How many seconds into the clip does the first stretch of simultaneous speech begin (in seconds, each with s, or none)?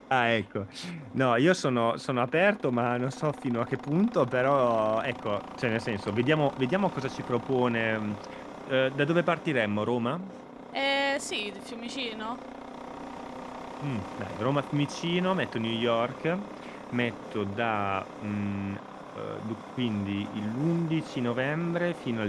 none